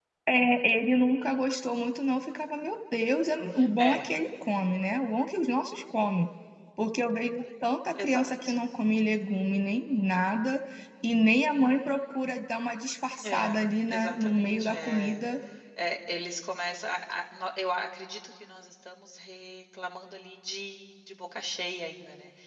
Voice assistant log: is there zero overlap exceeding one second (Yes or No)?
No